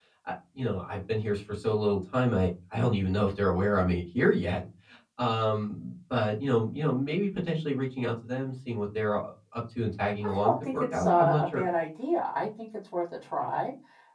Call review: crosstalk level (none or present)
present